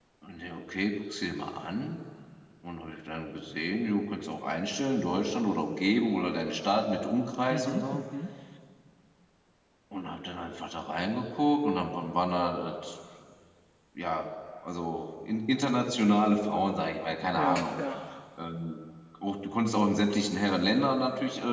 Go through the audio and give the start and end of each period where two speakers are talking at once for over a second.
none

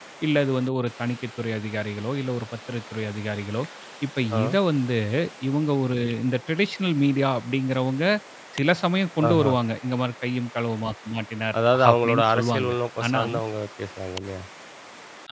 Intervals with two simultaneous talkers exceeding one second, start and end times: 11.7-13.2

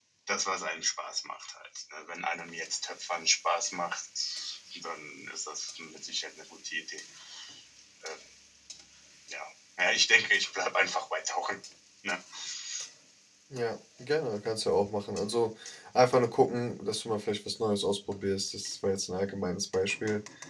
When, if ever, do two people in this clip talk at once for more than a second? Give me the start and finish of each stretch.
none

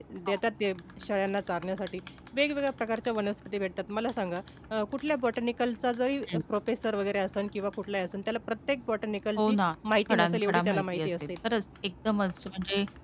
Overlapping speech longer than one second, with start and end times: 10.1-11.3

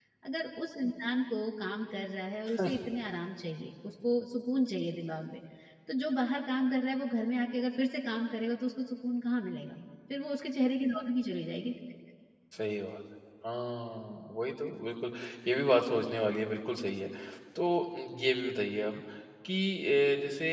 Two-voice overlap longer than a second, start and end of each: none

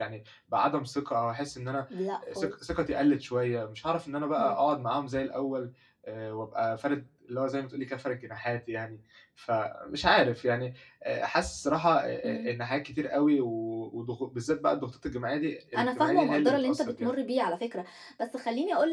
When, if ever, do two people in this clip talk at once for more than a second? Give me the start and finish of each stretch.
15.8-17.2

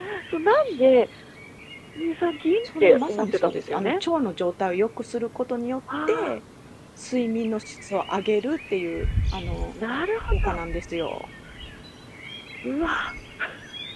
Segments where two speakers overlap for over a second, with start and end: 2.6-3.9

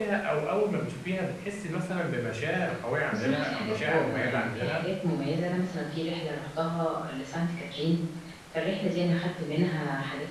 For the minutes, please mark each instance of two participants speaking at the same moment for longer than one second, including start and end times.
3.1-4.8

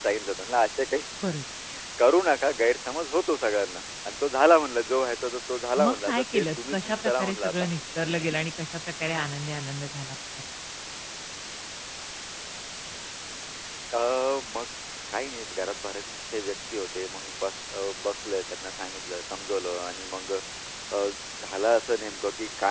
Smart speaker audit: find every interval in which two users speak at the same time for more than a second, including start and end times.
5.8-7.7

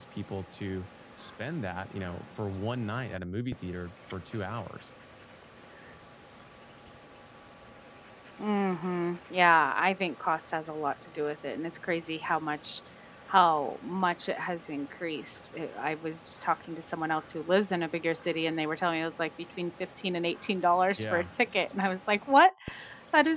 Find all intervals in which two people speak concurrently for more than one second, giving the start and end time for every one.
none

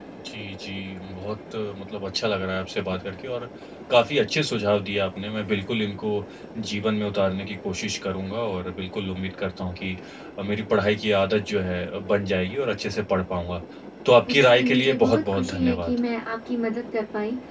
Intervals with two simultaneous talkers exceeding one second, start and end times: 14.3-16.0

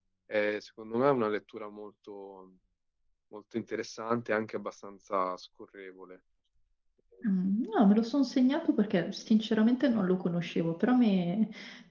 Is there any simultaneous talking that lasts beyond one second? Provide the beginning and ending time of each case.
none

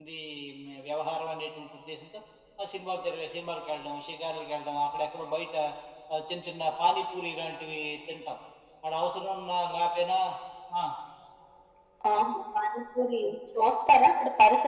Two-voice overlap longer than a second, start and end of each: none

